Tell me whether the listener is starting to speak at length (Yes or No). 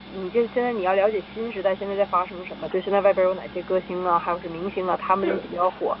No